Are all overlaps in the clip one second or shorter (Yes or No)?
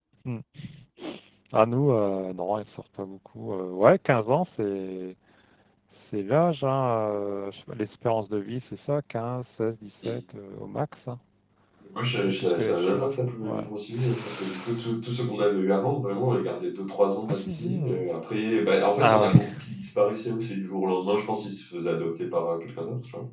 No